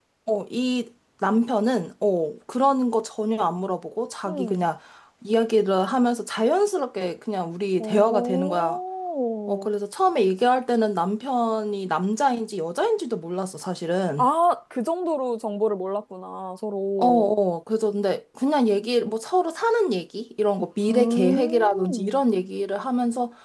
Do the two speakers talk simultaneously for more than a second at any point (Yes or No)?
Yes